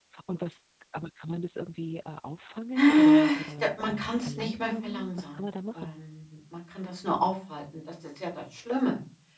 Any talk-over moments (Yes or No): Yes